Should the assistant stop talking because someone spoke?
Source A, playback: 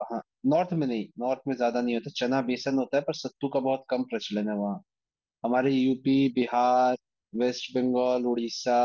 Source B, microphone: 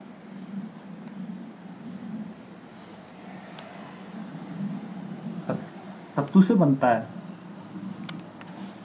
Yes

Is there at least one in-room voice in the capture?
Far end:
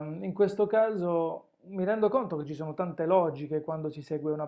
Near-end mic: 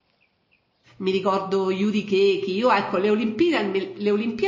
Yes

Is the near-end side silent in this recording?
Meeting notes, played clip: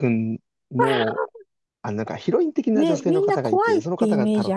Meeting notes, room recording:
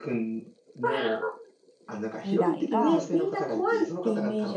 No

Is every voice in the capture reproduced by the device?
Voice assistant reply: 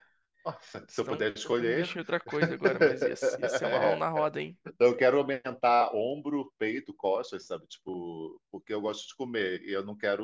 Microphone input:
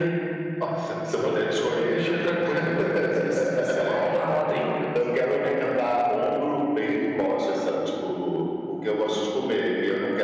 Yes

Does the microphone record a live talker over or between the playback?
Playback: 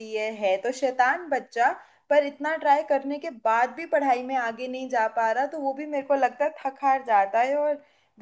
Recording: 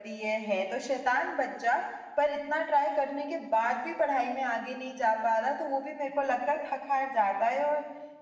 No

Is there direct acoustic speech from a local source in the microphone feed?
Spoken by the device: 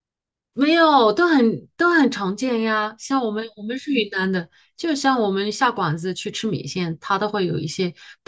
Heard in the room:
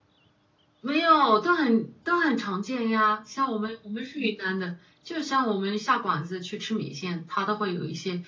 No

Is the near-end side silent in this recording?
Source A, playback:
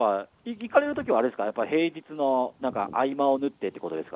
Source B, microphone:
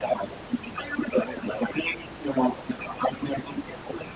Yes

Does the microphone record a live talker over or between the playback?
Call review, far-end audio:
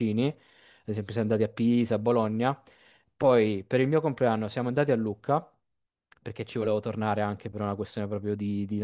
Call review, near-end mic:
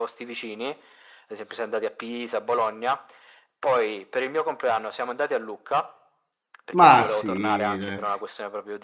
Yes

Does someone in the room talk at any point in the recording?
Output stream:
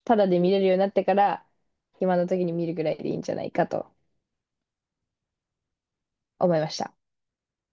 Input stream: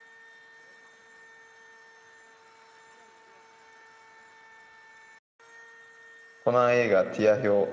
Yes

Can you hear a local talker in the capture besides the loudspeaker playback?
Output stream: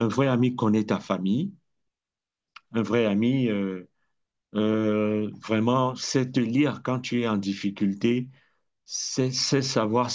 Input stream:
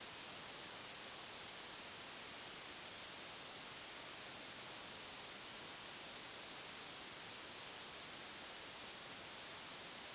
No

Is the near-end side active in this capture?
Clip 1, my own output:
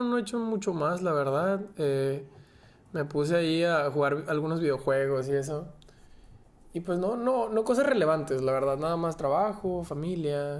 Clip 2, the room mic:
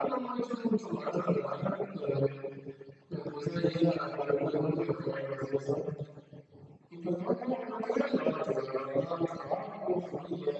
No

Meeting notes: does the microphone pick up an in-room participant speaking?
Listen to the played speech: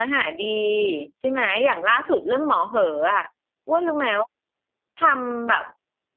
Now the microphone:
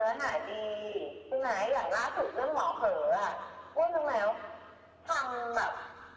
No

